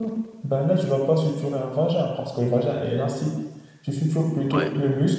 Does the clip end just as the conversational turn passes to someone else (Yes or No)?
No